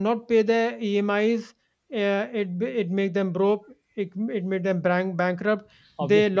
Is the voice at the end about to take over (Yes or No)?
No